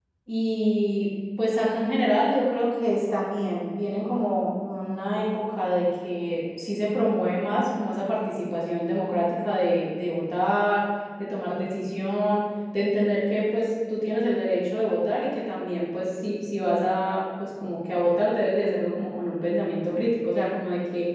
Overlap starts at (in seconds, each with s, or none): none